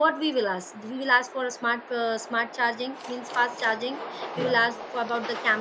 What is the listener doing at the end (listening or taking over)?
listening